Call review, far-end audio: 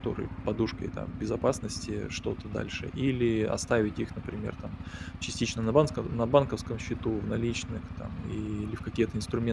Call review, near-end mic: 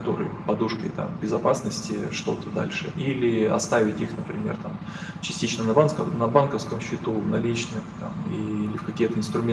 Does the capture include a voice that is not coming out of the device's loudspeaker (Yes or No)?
No